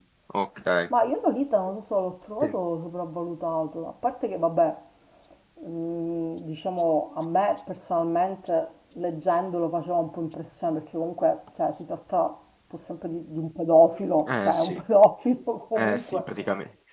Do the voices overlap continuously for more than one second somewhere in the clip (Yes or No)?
No